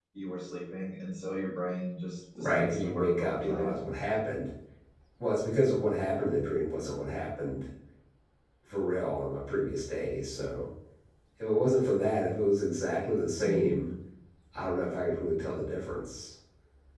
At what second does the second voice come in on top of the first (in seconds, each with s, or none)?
2.4 s